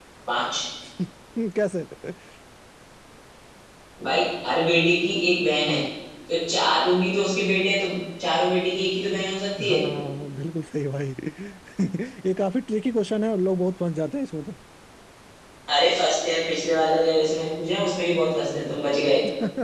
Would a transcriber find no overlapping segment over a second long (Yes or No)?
Yes